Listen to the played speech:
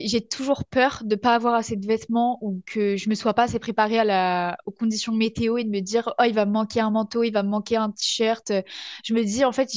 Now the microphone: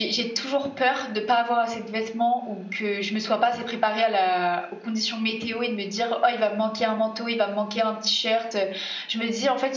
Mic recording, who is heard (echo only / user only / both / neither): echo only